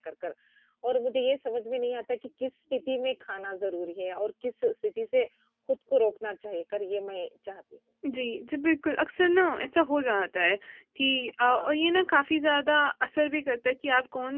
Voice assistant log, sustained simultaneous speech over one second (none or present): none